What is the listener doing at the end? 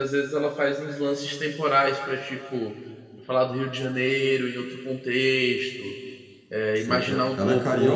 taking over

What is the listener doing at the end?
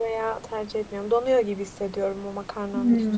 taking over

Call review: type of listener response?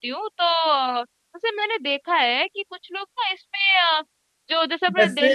listening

